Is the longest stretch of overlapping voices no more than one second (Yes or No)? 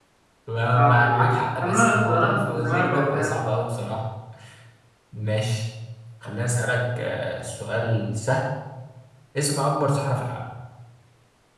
No